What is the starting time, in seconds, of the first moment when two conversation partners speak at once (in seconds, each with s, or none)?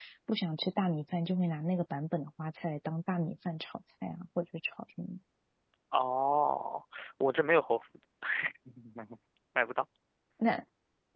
none